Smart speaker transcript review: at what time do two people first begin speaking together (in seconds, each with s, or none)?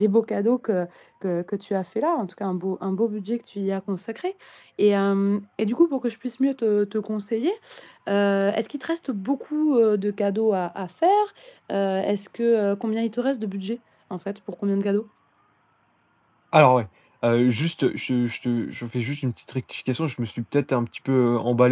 none